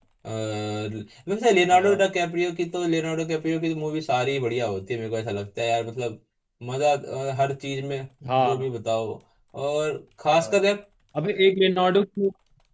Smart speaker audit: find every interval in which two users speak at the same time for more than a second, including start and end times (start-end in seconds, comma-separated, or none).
none